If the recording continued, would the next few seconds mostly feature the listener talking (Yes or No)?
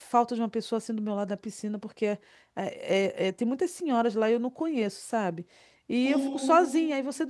No